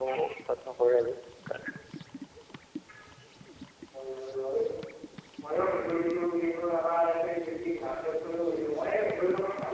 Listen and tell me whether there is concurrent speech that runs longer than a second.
No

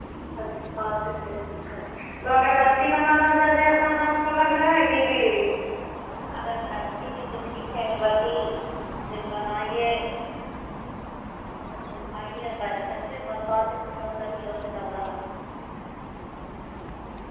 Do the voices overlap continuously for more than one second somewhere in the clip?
No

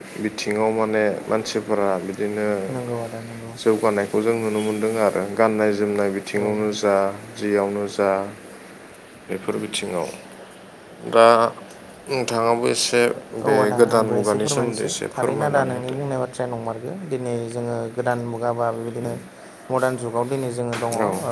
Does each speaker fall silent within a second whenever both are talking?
No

